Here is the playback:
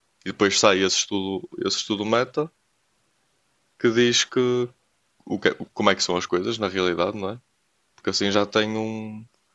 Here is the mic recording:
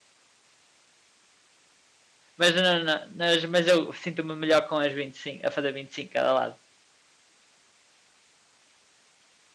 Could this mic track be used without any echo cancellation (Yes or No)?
Yes